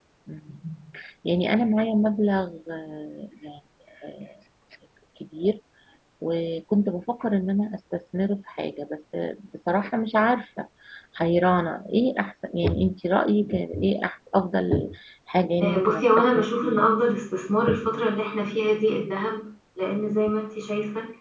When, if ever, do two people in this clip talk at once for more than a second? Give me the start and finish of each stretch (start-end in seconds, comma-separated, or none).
15.6-16.9